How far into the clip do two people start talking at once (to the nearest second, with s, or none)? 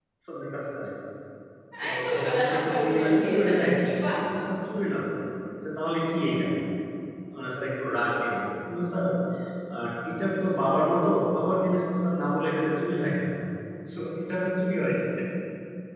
2 s